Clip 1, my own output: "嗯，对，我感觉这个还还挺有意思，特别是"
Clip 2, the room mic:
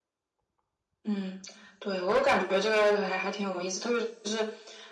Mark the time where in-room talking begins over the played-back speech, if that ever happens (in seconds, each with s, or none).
none